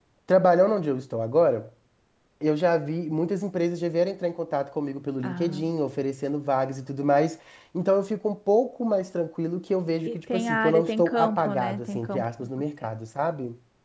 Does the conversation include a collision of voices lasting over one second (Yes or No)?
Yes